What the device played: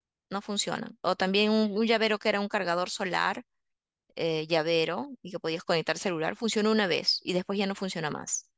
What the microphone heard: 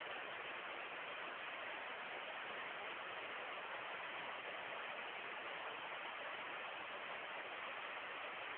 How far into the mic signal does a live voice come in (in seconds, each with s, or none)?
none